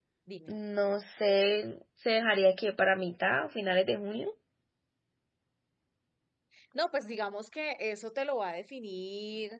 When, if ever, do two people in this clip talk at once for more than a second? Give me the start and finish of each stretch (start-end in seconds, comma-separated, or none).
none